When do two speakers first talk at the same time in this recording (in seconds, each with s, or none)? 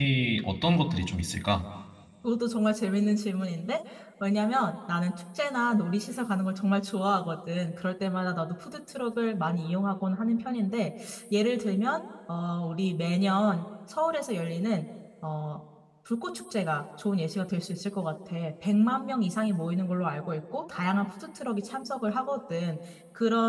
none